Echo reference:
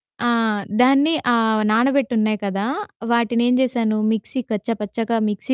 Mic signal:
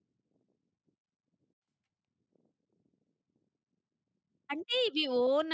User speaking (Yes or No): Yes